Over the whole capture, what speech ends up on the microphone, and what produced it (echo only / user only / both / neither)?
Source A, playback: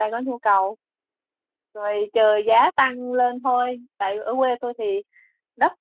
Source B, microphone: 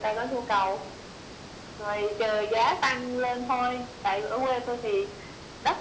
echo only